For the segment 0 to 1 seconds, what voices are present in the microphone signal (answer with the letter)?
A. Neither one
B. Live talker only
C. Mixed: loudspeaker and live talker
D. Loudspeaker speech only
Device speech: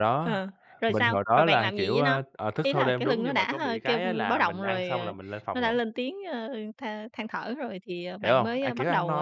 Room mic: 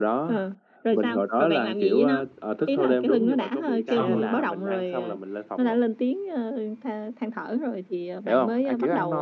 D